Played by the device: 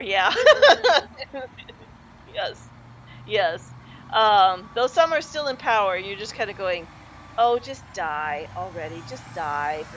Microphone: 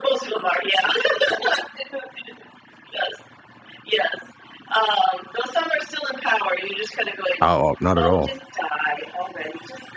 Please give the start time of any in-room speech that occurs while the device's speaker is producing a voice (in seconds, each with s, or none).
7.4 s